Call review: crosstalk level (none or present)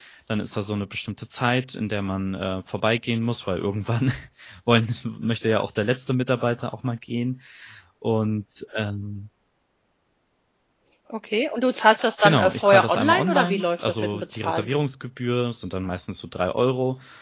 present